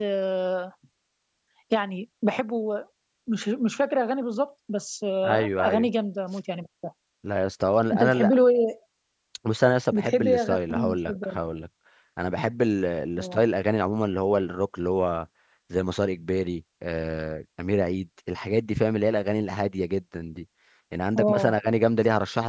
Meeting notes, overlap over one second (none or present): present